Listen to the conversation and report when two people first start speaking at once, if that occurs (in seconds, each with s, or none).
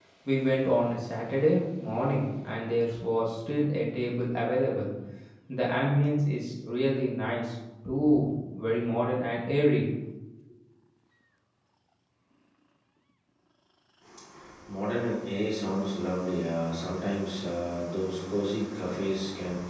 none